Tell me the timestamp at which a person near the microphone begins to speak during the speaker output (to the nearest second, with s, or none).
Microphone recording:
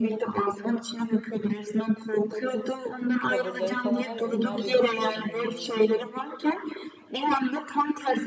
3 s